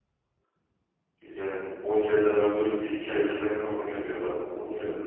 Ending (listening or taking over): taking over